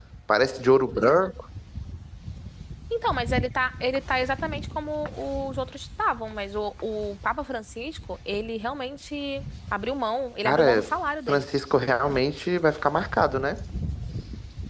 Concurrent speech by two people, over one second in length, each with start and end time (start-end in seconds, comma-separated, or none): none